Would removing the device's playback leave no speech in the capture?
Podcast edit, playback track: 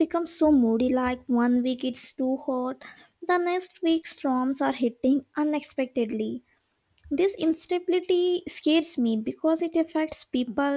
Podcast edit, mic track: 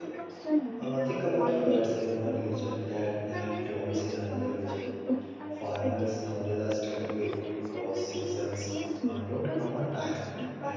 No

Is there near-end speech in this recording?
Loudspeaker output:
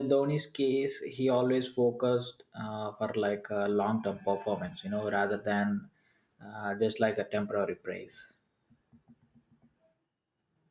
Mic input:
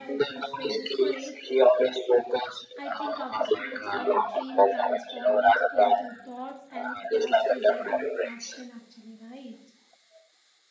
Yes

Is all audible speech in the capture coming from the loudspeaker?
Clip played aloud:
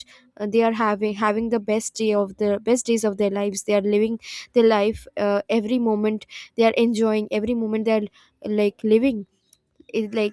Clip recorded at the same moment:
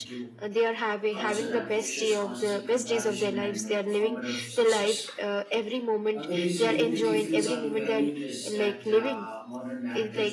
No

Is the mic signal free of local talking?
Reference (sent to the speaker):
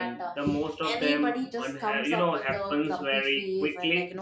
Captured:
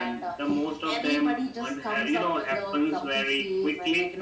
Yes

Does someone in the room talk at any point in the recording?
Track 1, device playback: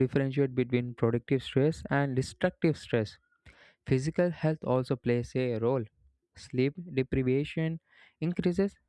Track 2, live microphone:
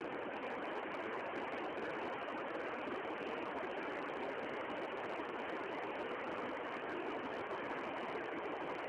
No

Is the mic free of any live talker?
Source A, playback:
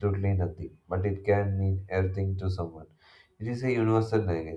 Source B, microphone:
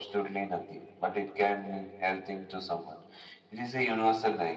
Yes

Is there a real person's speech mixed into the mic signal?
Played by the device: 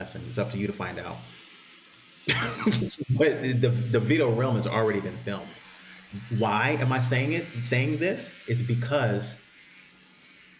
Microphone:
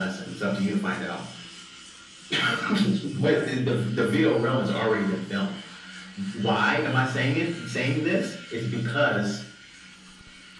No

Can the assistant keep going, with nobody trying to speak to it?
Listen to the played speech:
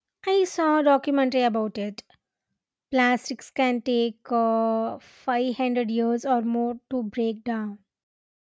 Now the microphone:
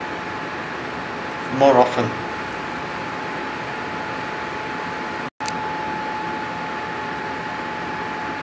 No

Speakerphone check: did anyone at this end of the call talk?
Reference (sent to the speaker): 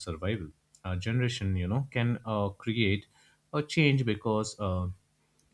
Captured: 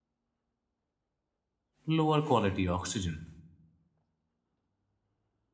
Yes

